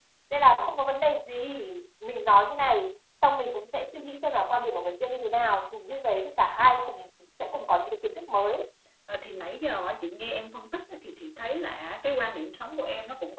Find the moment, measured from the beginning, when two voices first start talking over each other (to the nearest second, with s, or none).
none